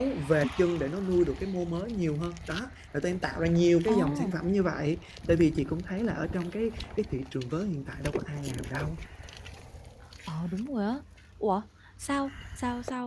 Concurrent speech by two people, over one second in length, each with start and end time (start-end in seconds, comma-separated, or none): none